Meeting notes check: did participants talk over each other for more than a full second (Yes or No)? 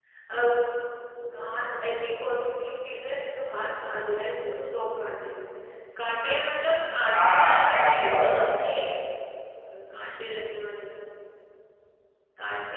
Yes